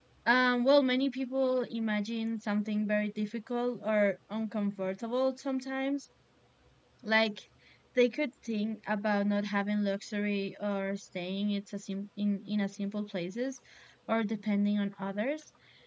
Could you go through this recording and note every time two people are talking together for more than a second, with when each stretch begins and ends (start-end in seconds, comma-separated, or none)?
none